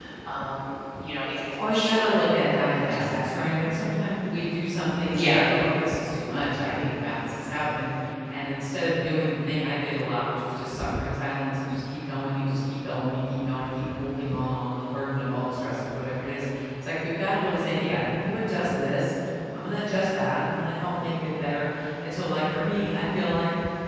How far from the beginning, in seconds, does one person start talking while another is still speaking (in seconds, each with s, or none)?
1.6 s